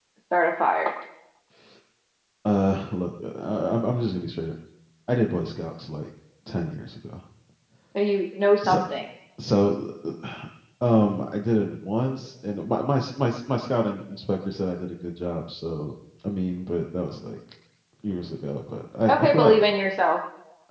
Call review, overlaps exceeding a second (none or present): none